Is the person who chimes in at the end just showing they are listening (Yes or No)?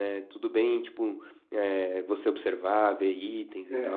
No